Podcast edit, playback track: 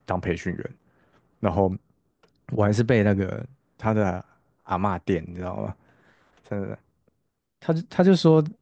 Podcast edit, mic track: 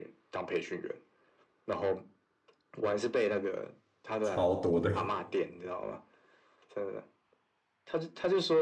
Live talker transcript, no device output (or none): 超多的，